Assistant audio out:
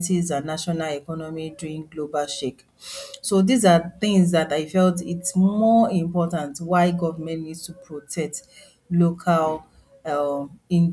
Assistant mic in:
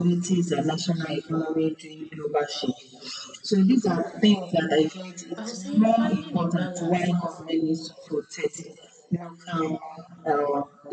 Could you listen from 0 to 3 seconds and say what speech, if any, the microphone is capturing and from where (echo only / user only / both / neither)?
echo only